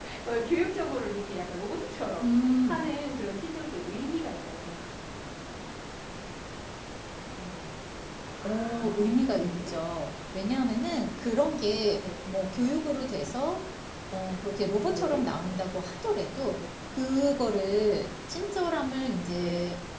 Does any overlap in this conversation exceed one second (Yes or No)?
Yes